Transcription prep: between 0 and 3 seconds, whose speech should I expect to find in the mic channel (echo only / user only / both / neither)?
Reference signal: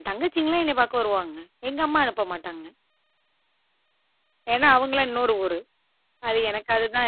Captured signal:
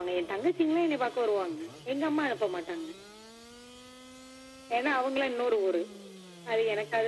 echo only